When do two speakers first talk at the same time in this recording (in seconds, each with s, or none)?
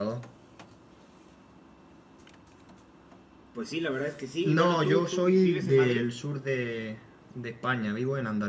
4.4 s